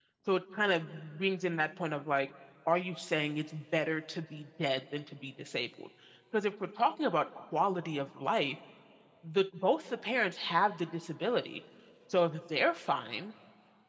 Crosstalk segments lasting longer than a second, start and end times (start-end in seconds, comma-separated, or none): none